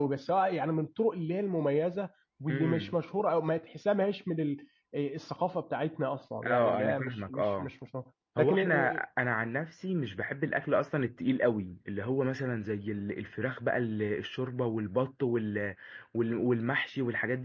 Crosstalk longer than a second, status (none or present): present